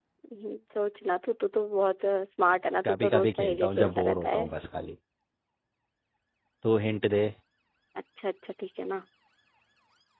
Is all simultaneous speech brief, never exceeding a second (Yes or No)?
No